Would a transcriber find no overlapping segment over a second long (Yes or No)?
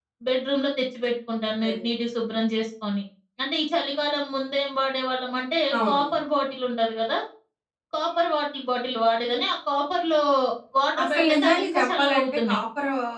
No